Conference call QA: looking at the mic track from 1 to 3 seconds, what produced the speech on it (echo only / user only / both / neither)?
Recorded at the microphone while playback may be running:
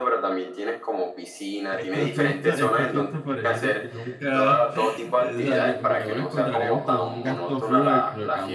both